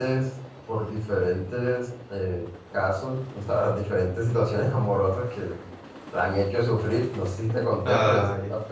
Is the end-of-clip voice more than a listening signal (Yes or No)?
No